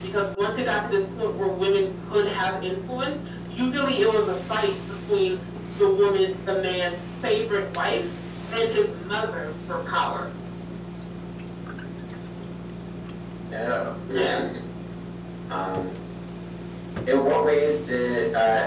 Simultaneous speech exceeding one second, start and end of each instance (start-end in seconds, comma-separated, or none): none